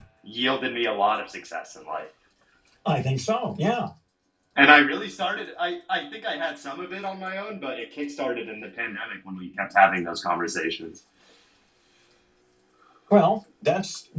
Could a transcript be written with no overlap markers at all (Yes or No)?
Yes